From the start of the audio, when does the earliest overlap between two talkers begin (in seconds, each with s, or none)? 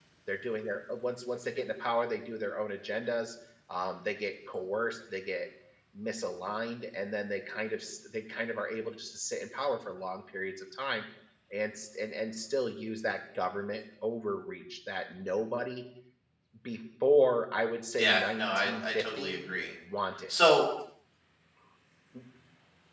18.0 s